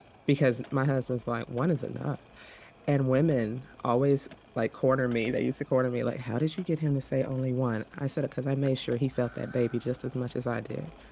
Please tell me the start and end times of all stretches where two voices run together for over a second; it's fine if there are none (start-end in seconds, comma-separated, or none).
none